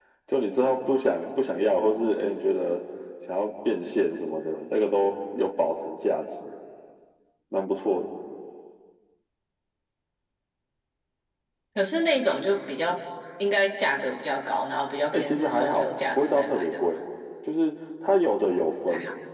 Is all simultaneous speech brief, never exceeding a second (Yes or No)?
No